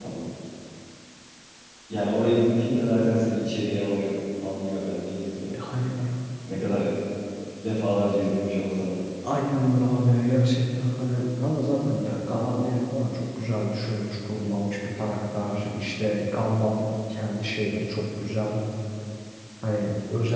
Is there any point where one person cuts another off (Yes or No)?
No